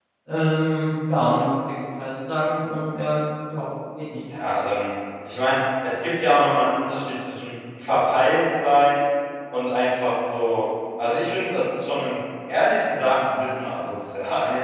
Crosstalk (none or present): none